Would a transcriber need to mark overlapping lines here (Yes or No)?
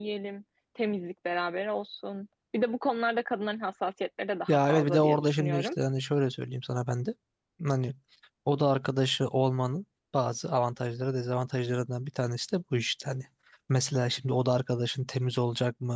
Yes